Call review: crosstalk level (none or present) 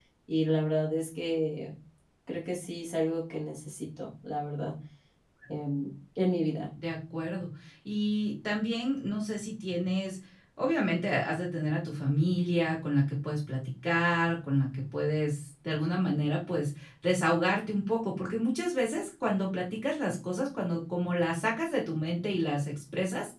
none